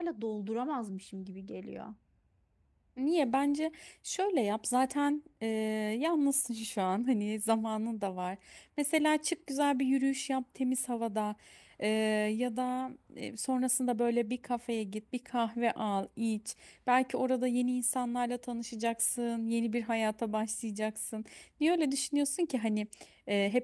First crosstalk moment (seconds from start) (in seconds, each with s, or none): none